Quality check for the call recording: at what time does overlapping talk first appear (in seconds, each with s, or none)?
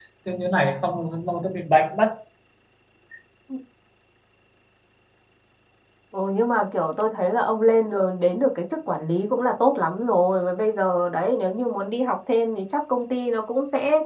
none